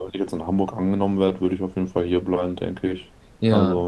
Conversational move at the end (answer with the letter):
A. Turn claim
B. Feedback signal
A